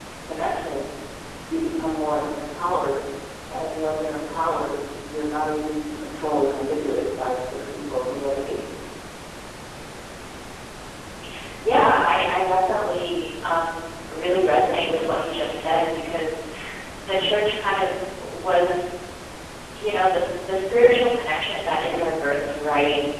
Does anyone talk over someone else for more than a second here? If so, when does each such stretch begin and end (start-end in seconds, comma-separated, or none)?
none